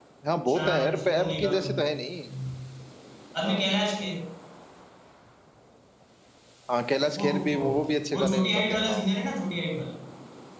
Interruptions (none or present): present